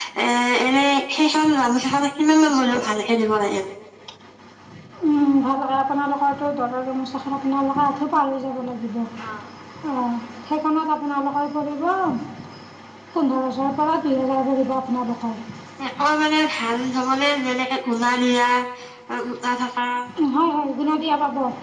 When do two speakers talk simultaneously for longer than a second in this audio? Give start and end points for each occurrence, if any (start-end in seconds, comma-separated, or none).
none